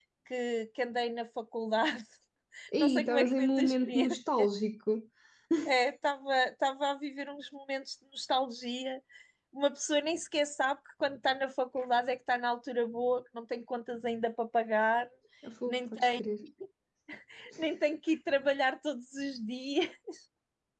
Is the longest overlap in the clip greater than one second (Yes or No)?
Yes